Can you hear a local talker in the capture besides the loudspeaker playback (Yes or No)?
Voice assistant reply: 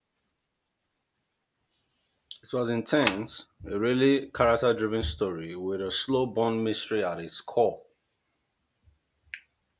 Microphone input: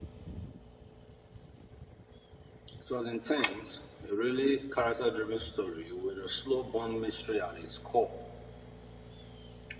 No